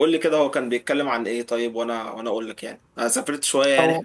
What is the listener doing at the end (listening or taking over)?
listening